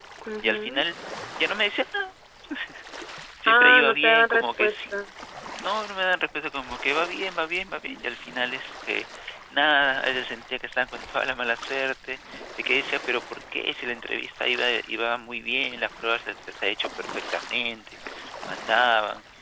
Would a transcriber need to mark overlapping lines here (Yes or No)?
Yes